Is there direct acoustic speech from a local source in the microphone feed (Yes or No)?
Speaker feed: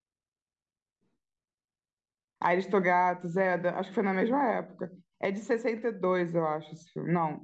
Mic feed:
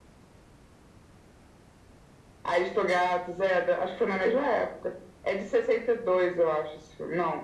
No